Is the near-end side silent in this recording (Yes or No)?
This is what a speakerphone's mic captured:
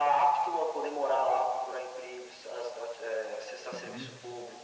No